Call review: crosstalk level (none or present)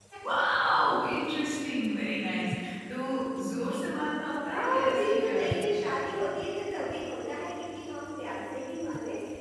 present